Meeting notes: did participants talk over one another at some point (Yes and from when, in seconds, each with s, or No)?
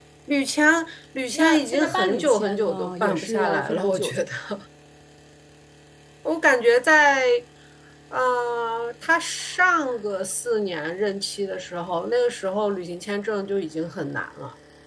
Yes, from 1.3 s